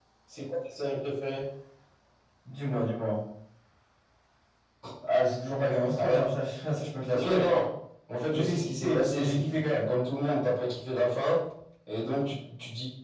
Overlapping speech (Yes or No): Yes